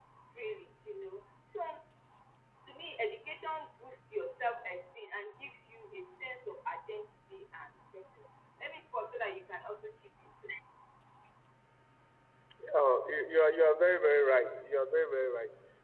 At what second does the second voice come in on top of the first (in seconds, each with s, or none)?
none